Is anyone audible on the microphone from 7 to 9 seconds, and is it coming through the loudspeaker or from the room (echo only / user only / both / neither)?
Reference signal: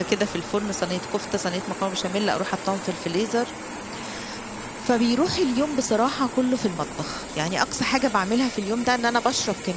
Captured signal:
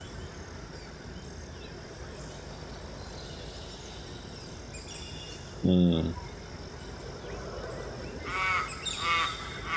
neither